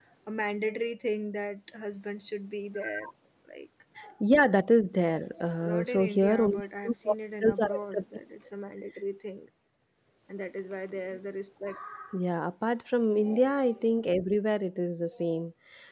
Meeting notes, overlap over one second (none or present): present